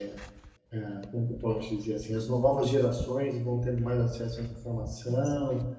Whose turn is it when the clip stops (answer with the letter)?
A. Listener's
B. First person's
B